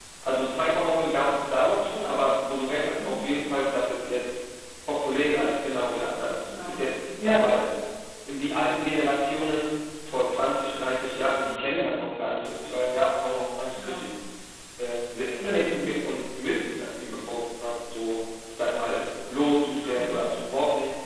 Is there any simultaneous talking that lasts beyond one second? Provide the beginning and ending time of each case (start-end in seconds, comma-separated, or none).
none